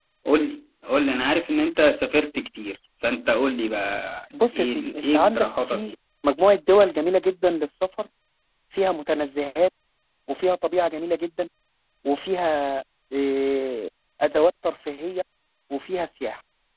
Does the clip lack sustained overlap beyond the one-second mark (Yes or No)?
No